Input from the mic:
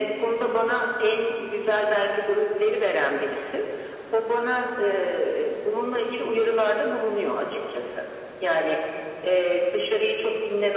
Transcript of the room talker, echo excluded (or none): none